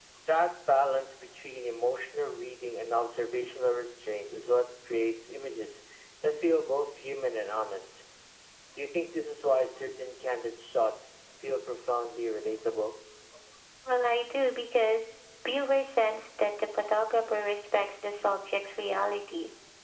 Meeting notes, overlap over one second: none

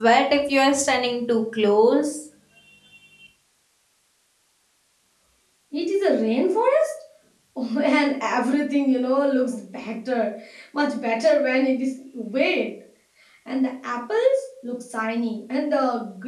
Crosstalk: none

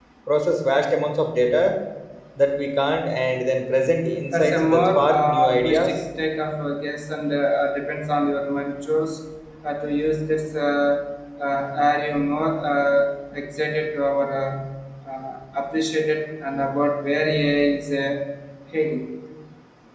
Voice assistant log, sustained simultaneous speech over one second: present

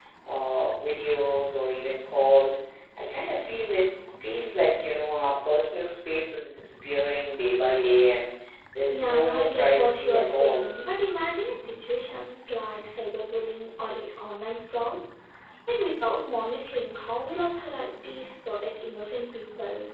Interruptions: present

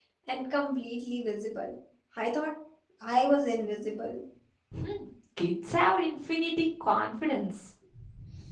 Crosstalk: none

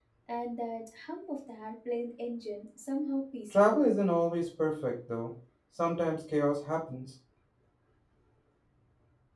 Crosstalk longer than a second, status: none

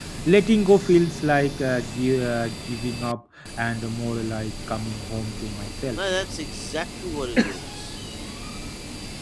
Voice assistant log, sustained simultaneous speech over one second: none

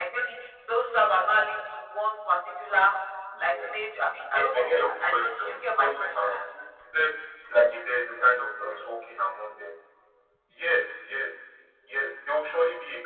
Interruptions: present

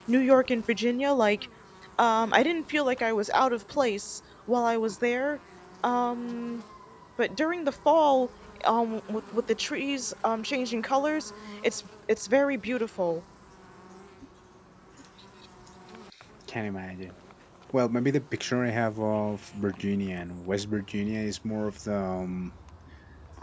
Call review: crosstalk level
none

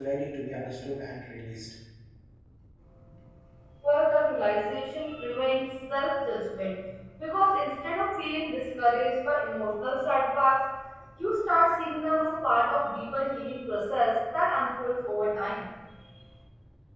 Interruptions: none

